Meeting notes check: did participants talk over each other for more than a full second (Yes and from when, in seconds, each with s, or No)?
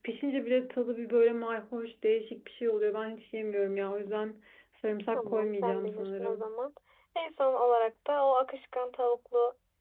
Yes, from 5.1 s